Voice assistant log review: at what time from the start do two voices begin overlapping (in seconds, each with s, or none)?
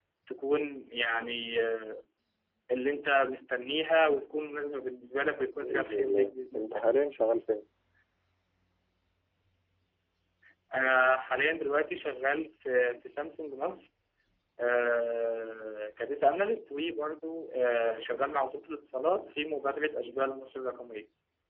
5.6 s